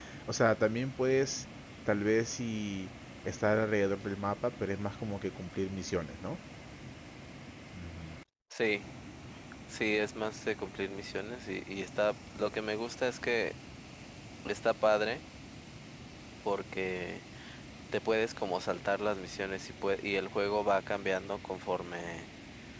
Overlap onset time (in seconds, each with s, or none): none